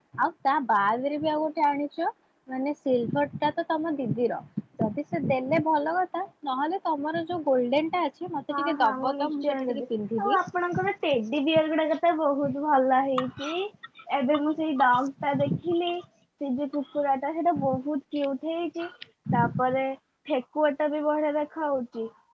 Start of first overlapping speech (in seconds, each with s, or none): 8.5 s